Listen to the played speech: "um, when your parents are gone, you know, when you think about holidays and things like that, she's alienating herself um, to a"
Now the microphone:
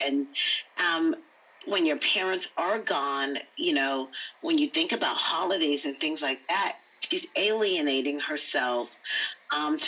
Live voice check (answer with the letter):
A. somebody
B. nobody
B